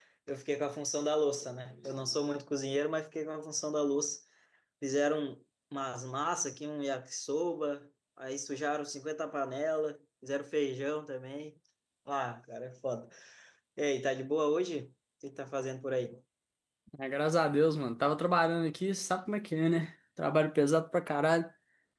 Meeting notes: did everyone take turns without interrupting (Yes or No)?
Yes